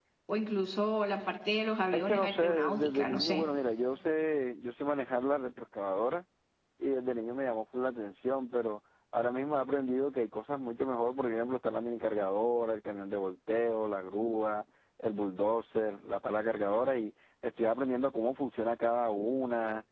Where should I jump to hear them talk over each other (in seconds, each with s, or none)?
1.9 s